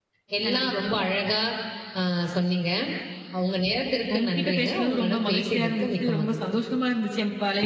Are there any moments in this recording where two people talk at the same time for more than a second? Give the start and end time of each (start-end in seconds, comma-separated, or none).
4.1-6.4